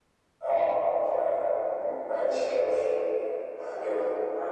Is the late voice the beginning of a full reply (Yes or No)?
Yes